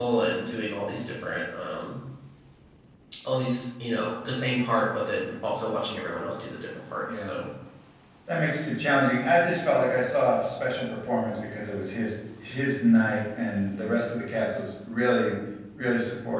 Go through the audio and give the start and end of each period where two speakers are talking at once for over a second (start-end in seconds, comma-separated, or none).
none